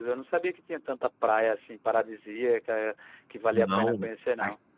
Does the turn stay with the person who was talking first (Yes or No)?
No